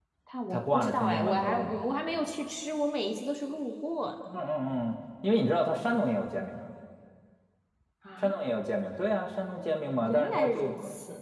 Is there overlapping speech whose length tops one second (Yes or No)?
Yes